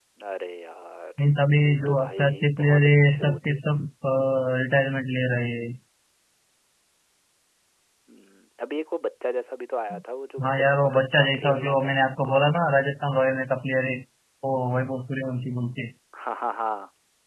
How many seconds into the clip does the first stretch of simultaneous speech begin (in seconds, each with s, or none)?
1.6 s